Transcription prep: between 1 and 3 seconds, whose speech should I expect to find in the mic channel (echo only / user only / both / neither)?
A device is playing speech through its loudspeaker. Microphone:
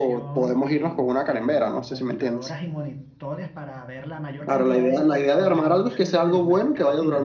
both